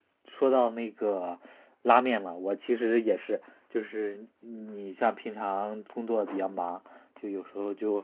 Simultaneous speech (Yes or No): No